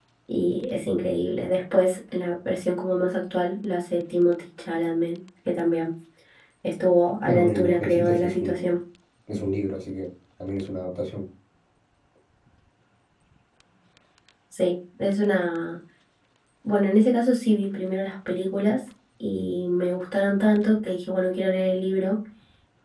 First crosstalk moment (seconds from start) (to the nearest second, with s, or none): 7 s